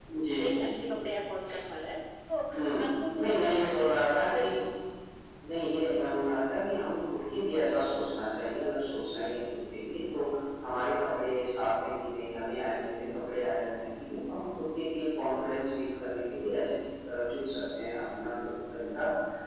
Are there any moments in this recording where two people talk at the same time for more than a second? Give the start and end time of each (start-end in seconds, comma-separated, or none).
3.2-4.5